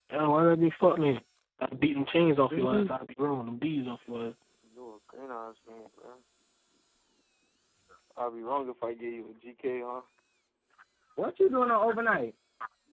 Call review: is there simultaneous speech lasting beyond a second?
No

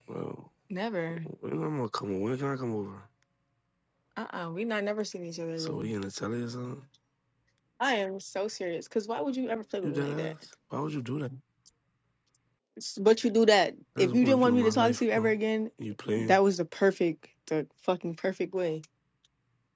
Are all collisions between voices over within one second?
No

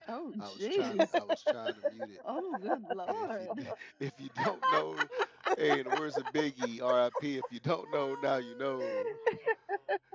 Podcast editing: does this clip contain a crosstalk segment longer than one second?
Yes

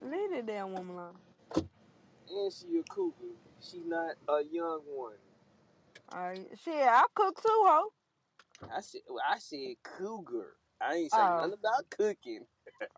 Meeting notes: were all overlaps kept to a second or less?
Yes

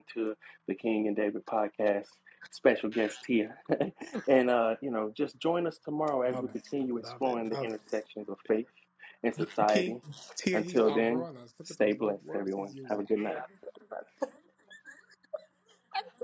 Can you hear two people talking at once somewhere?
Yes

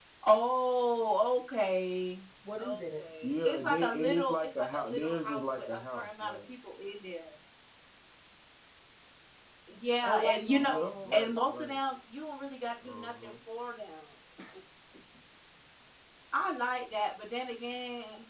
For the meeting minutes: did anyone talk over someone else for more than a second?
Yes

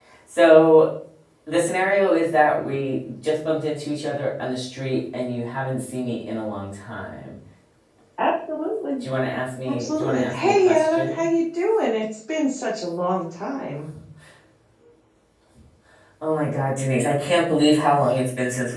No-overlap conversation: No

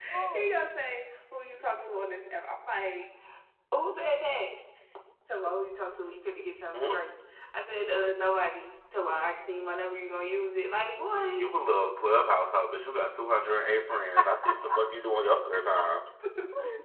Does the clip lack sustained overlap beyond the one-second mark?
Yes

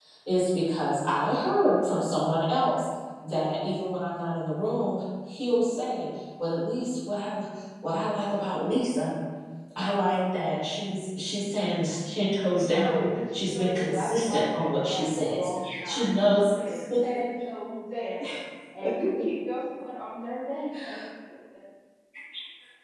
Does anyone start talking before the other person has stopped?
Yes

